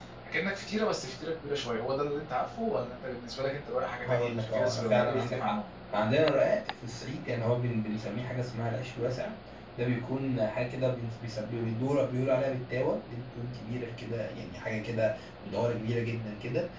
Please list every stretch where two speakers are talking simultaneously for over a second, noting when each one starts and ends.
4.0-5.6

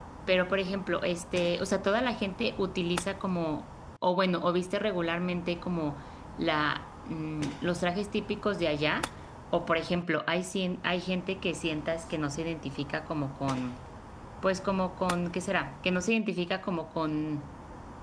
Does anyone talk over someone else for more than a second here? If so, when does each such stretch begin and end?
none

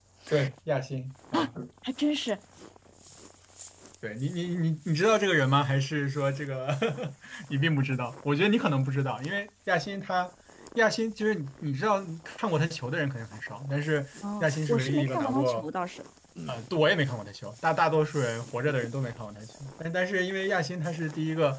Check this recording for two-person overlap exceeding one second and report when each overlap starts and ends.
14.4-15.7

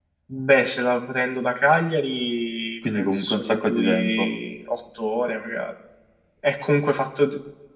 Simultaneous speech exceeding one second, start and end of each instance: 2.9-4.3

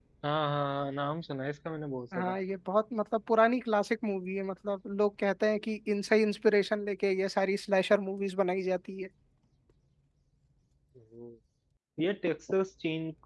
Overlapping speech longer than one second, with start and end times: none

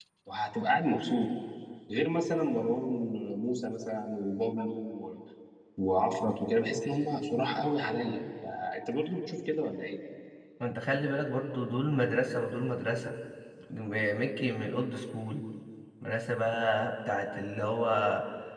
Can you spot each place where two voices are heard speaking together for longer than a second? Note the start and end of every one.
none

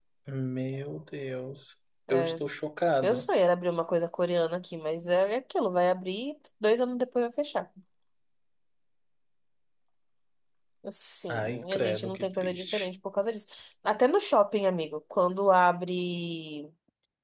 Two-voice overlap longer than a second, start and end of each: 11.3-12.9

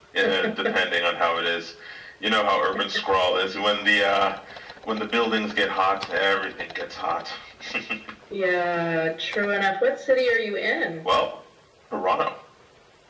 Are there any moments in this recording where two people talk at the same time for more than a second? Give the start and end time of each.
none

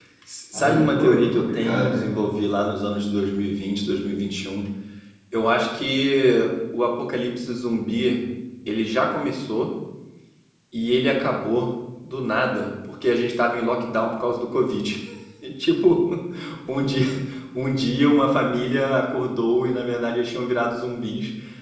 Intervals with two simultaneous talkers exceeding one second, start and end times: 0.5-2.1

